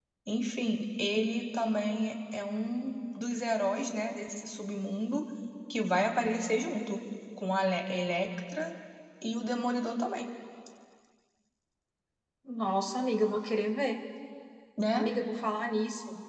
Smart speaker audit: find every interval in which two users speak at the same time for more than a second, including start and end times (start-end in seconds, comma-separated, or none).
none